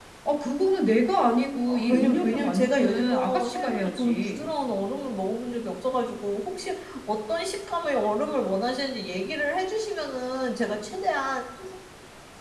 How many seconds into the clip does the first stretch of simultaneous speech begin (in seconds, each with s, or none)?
1.7 s